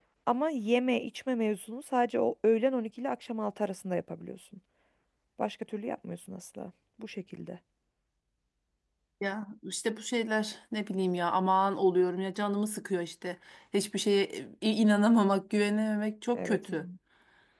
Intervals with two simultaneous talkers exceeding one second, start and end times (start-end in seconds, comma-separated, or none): none